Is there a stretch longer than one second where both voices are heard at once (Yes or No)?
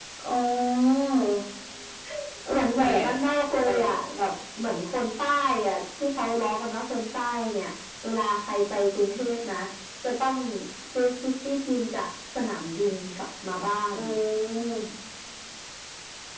Yes